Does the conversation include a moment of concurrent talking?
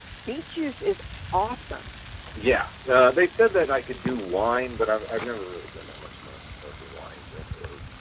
No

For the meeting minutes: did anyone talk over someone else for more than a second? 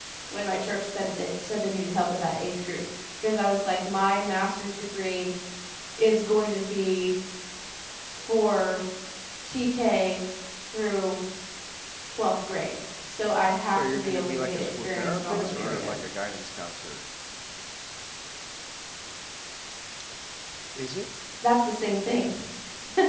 Yes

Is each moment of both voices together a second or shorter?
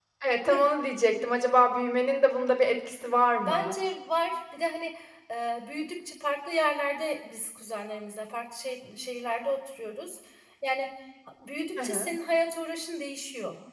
Yes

